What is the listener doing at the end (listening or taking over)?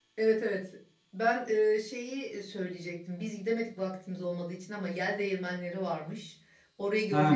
listening